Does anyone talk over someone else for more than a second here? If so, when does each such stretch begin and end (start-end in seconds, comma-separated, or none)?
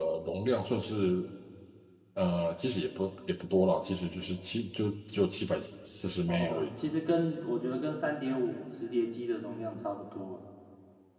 none